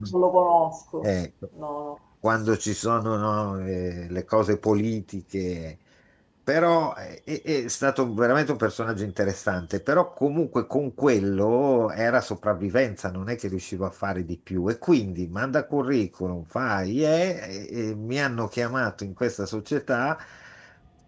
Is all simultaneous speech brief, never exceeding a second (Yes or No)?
Yes